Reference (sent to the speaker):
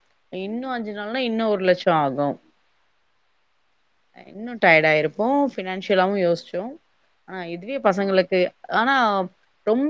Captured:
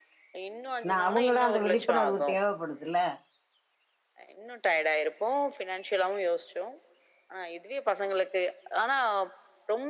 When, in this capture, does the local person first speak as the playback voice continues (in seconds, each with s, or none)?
0.9 s